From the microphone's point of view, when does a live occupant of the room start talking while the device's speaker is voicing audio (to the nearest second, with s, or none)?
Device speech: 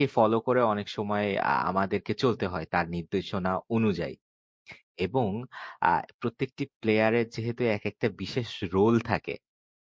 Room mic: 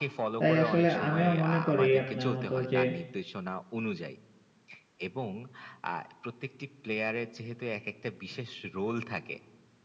0 s